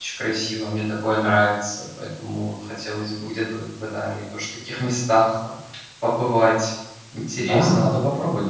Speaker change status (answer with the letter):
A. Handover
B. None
A